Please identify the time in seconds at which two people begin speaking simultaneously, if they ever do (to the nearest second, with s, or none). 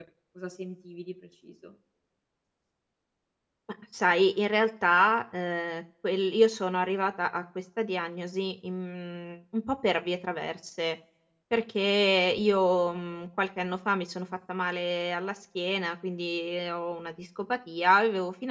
none